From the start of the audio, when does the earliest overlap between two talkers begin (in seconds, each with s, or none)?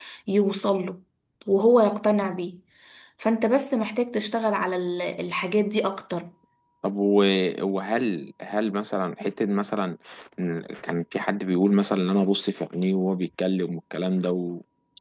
none